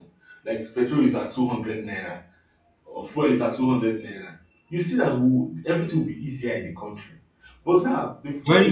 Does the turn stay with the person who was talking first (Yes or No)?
Yes